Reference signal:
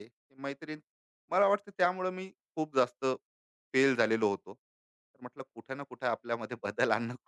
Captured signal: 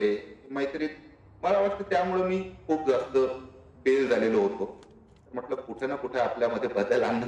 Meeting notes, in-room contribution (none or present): none